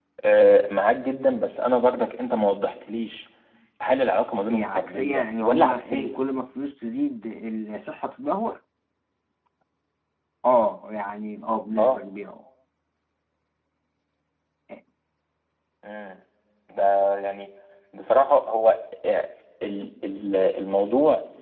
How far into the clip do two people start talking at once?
4.5 s

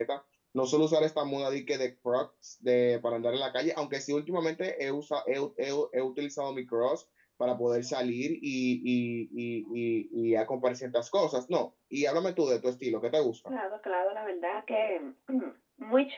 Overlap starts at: none

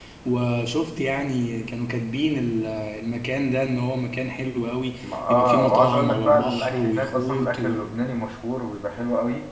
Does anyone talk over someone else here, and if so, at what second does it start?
5.0 s

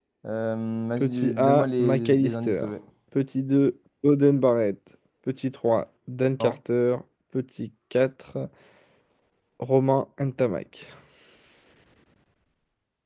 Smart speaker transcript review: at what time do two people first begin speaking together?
1.0 s

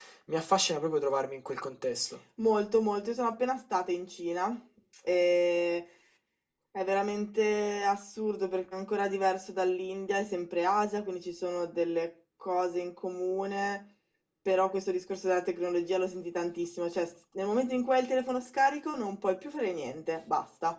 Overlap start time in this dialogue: none

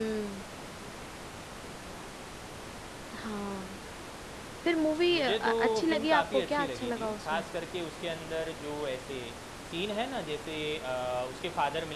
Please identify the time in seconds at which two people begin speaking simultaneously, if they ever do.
5.1 s

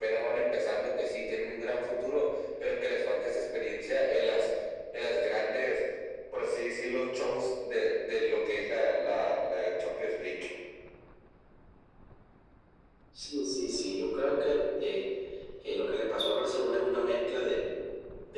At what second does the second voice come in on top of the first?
none

